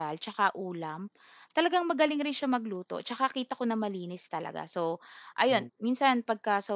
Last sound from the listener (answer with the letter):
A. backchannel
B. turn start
A